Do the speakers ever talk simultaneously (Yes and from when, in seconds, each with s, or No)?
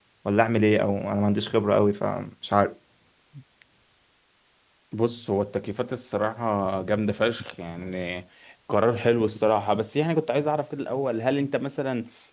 No